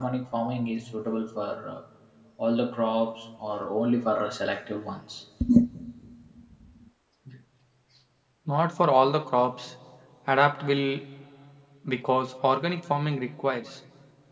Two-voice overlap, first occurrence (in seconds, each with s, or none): none